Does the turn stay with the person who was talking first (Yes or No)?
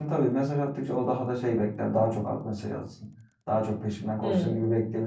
Yes